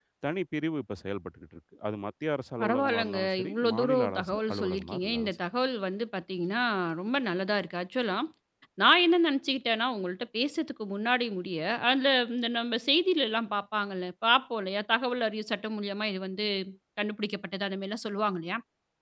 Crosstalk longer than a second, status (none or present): present